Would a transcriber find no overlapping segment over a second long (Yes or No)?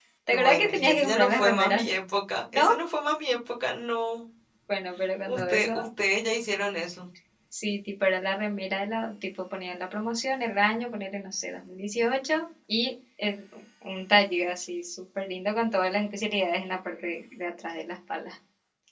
No